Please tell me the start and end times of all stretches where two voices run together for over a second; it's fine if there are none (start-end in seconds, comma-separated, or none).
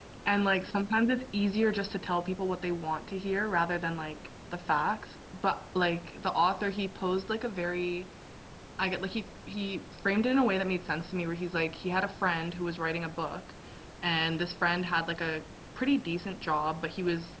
none